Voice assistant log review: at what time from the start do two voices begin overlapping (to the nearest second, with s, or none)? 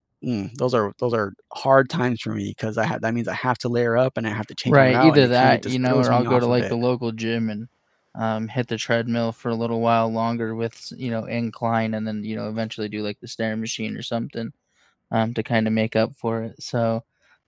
5 s